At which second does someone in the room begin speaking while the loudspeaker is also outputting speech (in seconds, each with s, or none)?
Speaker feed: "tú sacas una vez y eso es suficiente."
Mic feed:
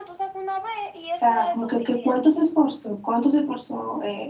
1.1 s